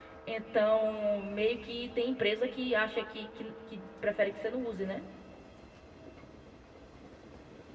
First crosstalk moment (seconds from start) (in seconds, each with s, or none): none